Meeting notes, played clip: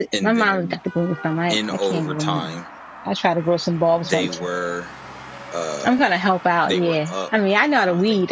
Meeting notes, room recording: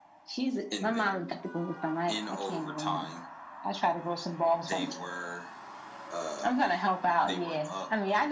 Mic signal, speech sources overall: echo only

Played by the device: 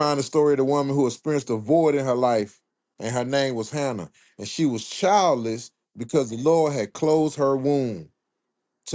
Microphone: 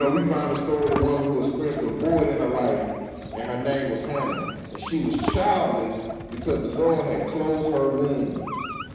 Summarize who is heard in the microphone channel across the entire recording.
echo only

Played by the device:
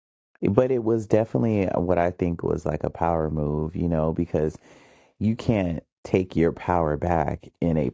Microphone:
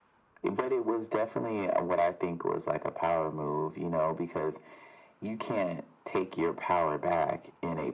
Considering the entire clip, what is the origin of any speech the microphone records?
echo only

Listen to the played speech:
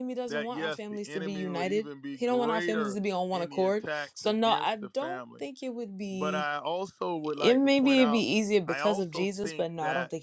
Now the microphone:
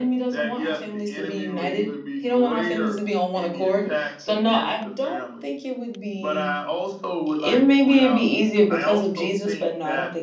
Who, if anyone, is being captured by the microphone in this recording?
echo only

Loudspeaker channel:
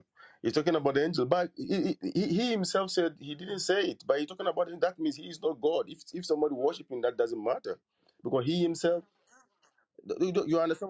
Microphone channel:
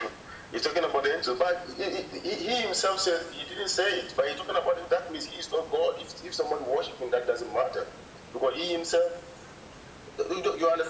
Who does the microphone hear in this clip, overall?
echo only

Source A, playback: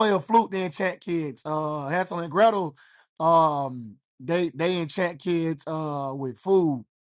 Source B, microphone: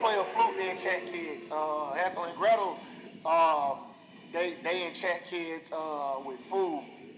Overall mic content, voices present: echo only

